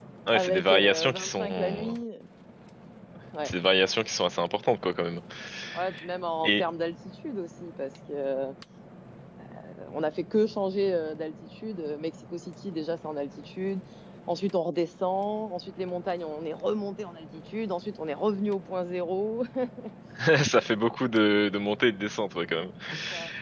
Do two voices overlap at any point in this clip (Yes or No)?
Yes